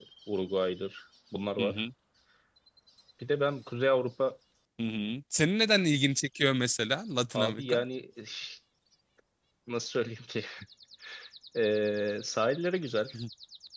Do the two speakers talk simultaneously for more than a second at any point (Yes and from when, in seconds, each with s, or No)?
No